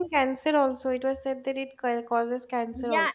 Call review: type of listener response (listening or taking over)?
taking over